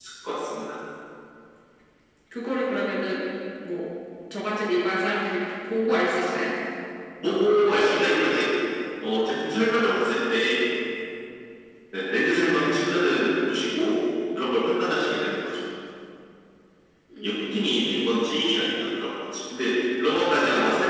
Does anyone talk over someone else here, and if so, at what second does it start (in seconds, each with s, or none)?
17.2 s